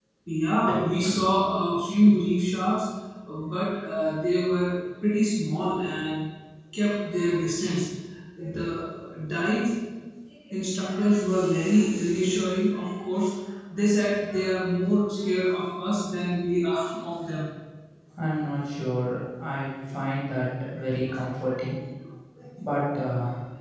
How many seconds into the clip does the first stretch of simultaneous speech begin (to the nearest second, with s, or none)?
none